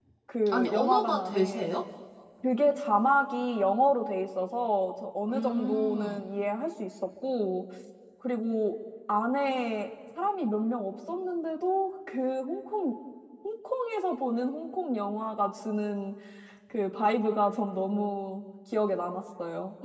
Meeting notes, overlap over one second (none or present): present